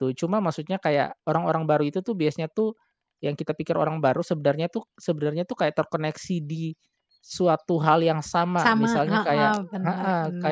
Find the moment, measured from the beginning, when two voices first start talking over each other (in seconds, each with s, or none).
8.6 s